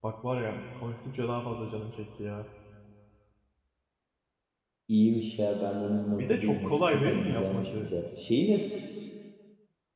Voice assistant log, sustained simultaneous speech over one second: present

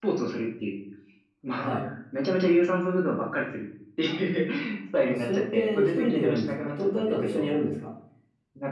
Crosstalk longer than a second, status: present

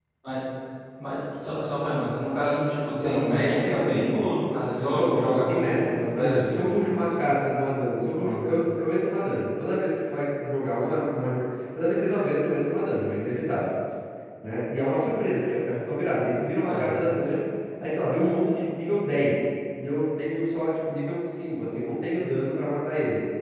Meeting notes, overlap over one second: present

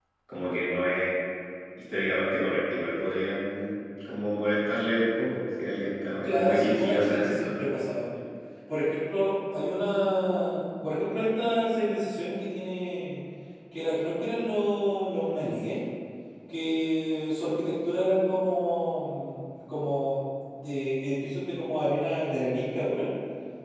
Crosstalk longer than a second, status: present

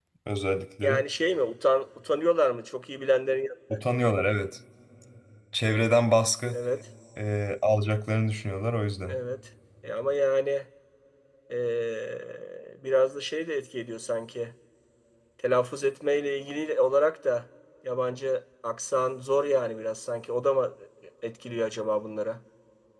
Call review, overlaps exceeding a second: none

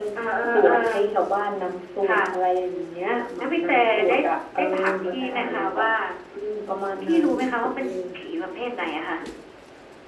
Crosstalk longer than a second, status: present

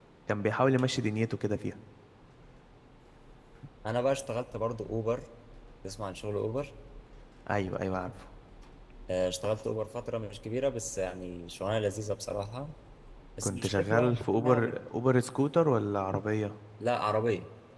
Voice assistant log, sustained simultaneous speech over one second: present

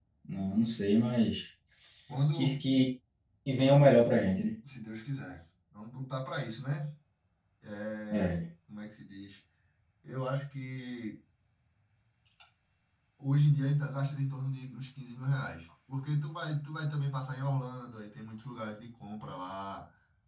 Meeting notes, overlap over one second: none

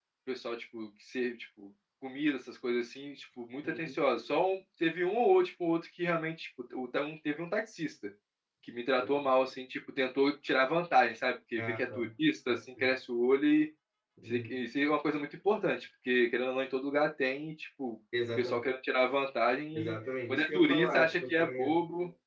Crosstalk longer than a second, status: present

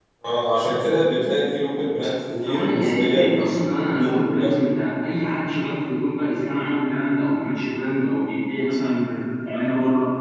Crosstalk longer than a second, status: present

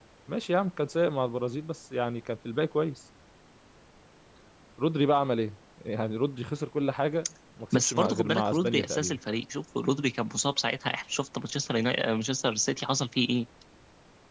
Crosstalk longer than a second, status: present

